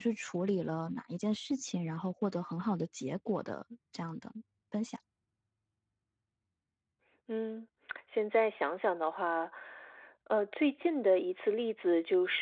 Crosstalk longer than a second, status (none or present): none